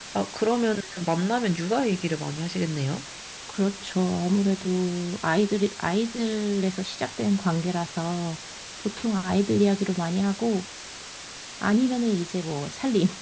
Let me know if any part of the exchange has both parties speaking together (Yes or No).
No